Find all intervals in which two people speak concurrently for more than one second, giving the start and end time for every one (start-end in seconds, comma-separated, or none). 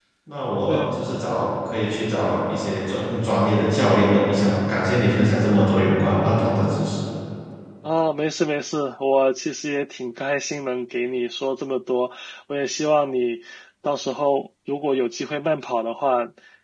none